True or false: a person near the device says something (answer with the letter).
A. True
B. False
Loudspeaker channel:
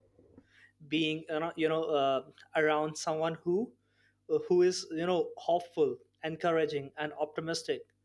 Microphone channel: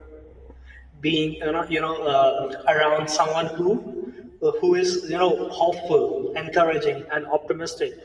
B